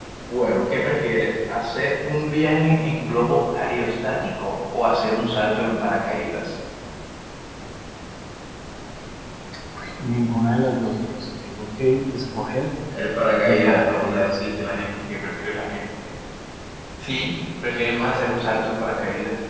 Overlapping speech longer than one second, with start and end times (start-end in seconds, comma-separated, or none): 13.4-14.7